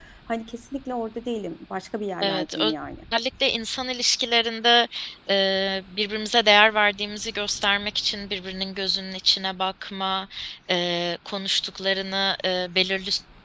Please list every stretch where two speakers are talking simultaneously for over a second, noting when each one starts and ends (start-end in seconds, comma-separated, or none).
none